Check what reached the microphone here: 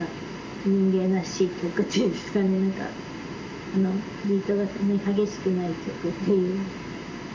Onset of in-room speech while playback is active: none

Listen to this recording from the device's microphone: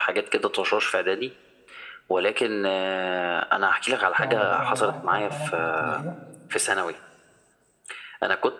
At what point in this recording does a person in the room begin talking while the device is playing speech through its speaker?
4.2 s

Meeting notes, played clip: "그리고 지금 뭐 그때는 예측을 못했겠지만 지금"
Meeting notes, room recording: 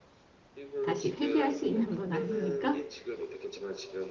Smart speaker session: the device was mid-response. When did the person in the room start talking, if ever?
0.8 s

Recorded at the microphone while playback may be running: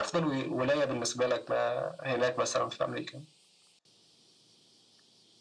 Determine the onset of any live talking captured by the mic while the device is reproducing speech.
none

